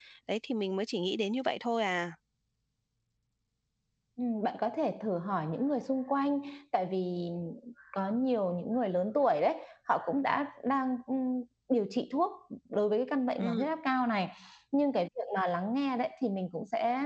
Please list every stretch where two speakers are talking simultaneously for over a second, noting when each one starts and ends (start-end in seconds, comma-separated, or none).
none